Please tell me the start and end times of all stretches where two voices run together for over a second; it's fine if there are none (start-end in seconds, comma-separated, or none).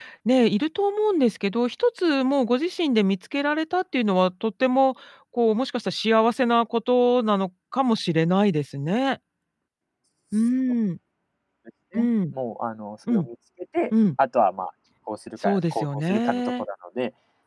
15.4-16.6